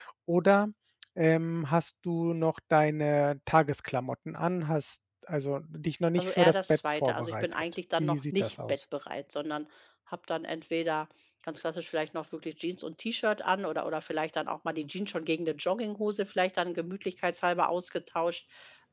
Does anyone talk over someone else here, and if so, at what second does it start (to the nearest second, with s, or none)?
6 s